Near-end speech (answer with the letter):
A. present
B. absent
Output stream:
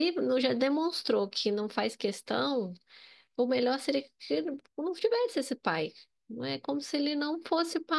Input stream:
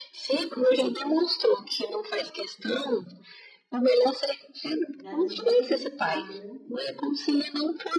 A